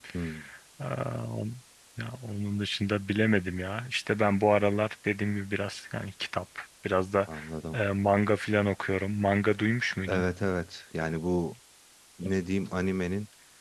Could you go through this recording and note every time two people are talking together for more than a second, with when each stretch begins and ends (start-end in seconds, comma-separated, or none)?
none